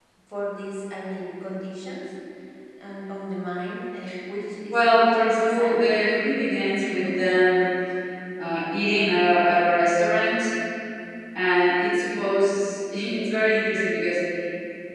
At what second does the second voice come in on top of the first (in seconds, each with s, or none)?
4.7 s